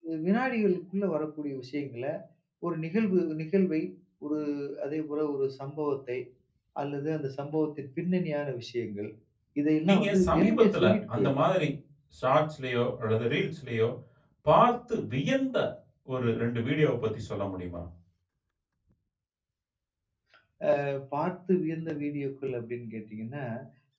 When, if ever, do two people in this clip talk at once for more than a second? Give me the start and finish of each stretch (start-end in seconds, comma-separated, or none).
9.9-11.4